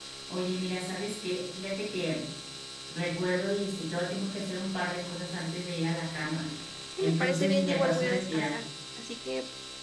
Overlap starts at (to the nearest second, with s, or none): 7 s